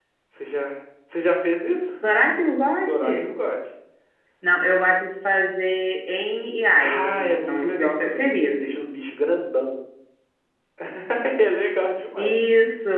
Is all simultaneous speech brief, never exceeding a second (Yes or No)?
No